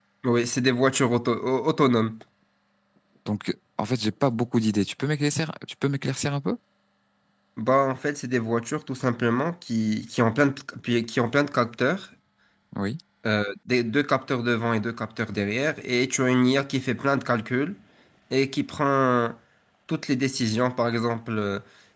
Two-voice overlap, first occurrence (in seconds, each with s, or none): none